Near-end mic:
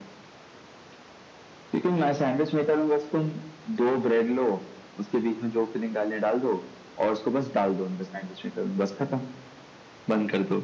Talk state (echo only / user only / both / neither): echo only